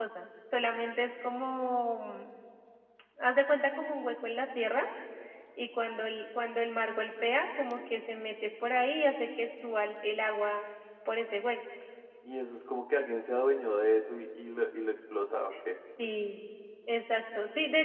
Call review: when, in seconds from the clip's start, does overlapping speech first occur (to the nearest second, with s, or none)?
none